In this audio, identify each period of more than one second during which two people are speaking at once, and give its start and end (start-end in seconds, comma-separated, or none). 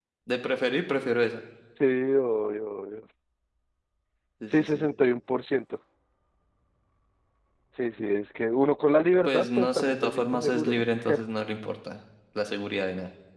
9.2-10.8